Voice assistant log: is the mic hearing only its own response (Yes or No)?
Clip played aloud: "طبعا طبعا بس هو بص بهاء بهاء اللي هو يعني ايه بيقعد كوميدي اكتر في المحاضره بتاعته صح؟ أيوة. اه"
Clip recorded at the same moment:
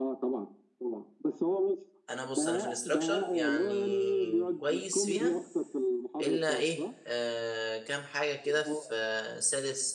No